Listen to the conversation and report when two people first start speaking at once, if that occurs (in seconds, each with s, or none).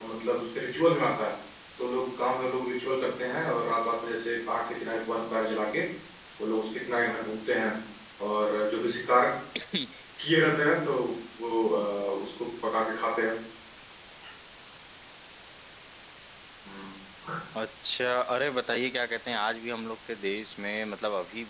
none